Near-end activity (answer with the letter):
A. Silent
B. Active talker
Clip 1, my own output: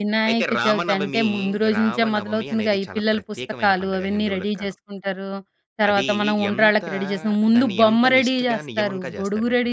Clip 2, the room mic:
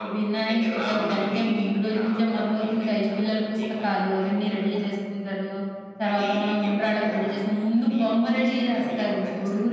A